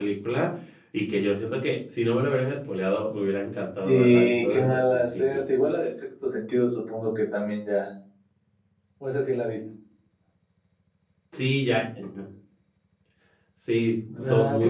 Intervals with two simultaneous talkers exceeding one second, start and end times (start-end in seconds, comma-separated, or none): 3.8-5.4